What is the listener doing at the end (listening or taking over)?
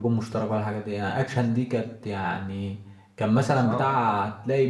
listening